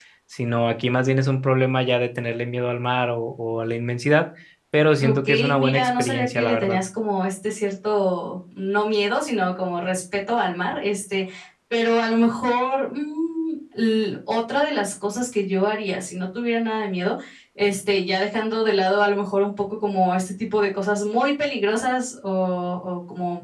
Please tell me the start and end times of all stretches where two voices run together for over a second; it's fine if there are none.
5.0-6.8

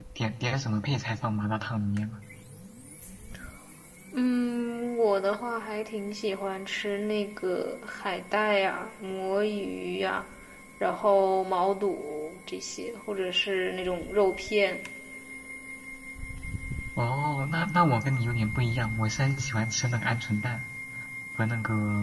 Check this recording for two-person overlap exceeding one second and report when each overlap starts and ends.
none

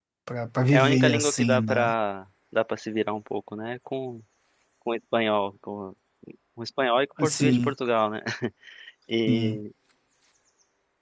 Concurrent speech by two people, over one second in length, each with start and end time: 0.7-1.9

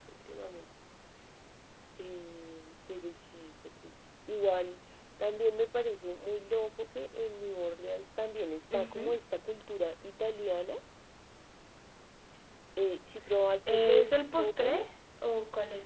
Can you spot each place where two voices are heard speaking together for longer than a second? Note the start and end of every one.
13.7-14.9

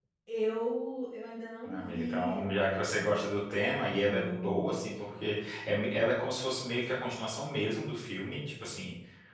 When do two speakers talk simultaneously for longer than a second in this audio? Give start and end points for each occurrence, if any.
1.6-3.1, 4.1-5.3

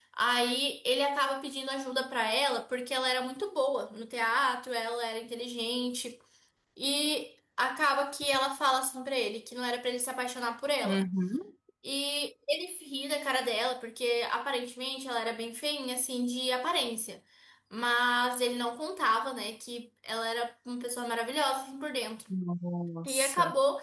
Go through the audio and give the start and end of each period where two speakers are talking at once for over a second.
none

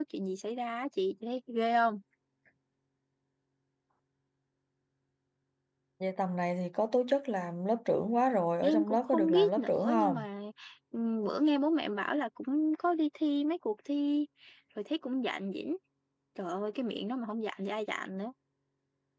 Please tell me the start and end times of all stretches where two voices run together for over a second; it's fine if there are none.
8.6-10.2

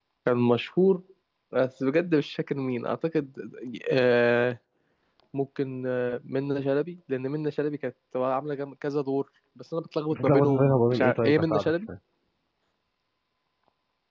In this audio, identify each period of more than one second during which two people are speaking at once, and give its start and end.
10.1-11.7

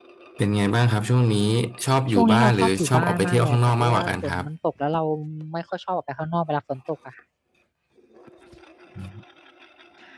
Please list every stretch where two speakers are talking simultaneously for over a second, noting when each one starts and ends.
2.1-4.4

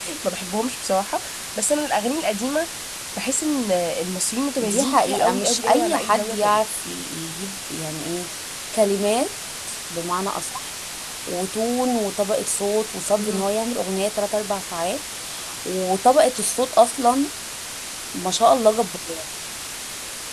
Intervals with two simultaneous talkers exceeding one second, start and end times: 4.6-6.6

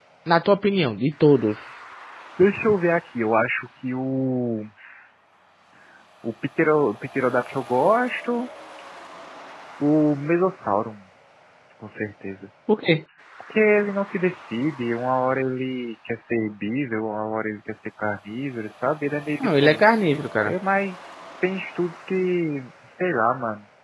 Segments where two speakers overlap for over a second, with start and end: none

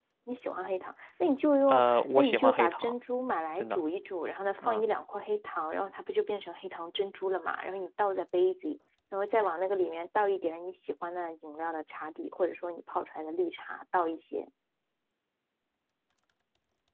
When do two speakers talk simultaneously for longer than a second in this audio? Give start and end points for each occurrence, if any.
1.7-2.9

